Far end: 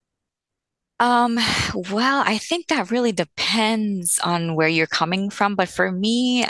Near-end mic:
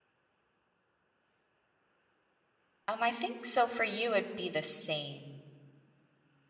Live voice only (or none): Um, I think so for you it'd be the same.